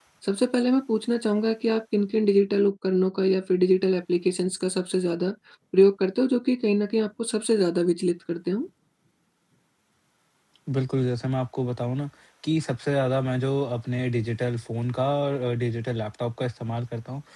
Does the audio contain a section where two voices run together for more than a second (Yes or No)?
No